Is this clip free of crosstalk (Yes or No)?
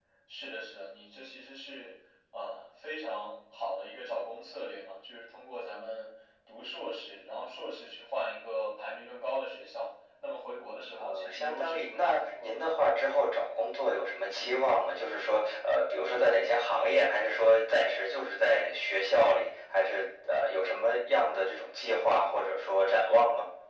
No